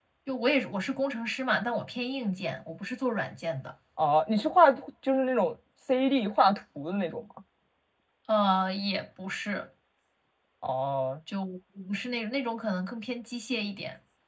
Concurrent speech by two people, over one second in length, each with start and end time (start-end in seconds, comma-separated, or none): none